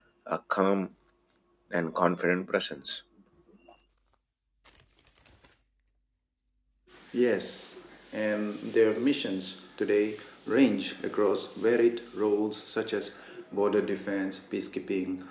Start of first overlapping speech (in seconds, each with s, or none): none